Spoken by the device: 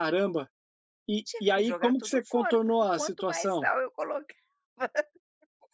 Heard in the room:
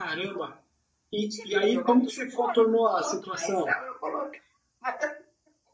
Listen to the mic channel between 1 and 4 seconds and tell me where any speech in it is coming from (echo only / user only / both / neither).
echo only